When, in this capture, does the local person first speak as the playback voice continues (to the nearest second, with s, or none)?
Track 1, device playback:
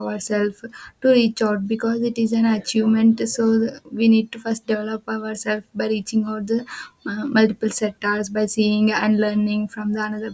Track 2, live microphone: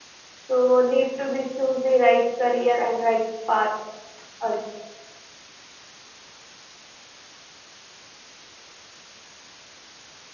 0 s